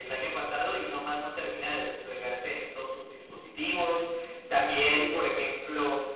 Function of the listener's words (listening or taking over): listening